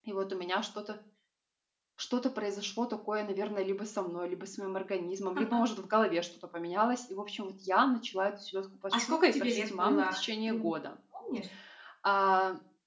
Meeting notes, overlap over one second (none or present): present